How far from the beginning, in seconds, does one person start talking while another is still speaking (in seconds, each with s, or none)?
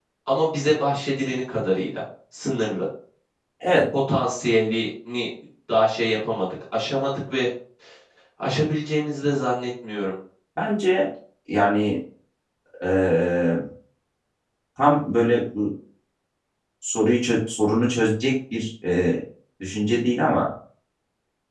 none